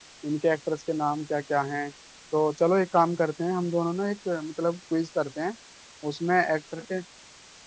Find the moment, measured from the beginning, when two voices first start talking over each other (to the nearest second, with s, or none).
none